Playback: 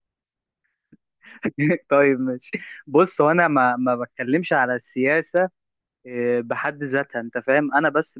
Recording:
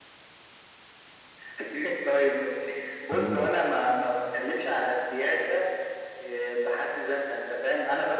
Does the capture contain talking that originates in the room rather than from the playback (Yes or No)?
Yes